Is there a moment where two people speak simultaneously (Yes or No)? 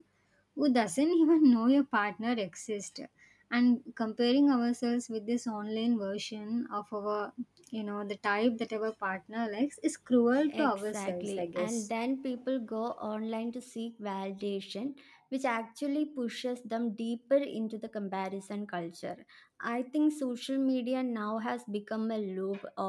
Yes